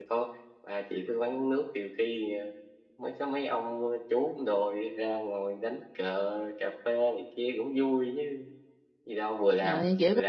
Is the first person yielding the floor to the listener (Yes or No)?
Yes